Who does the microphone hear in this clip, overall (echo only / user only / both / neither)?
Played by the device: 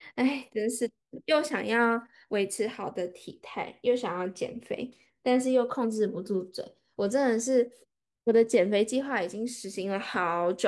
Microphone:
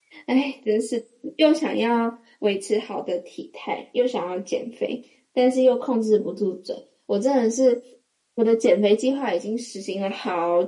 echo only